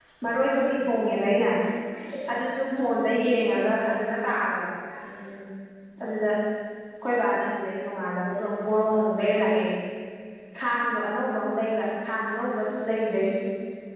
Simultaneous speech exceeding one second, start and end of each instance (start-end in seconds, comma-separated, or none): none